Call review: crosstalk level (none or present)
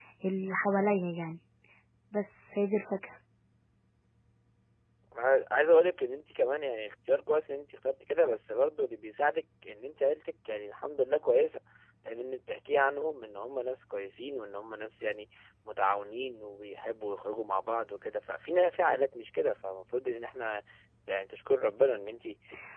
none